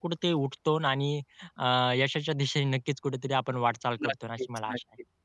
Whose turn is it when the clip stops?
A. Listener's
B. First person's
A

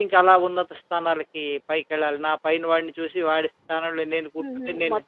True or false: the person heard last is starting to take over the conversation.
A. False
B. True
B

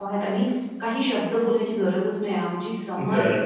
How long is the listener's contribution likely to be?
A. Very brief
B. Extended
A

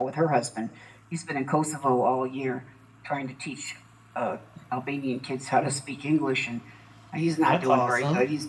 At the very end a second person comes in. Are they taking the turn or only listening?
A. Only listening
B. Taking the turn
A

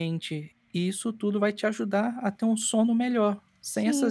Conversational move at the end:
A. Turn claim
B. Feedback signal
A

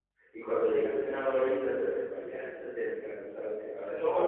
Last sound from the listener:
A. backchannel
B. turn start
B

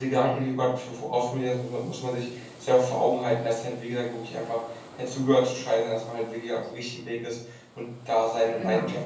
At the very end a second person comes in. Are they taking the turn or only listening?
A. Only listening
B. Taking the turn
A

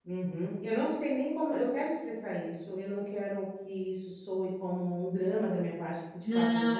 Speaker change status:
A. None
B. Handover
B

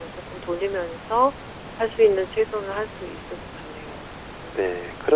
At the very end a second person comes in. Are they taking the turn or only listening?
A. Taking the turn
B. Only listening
A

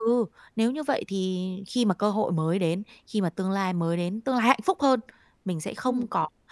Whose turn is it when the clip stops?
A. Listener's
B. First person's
B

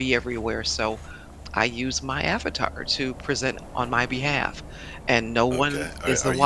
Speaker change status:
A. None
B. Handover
B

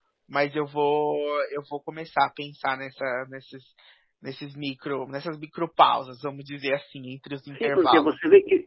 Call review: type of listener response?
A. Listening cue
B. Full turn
B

